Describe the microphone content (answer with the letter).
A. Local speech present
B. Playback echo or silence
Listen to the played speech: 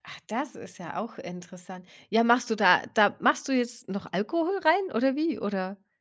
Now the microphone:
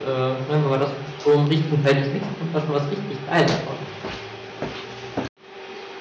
A